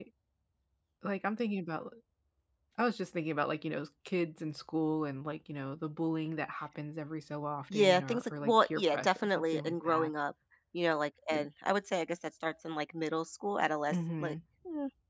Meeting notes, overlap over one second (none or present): present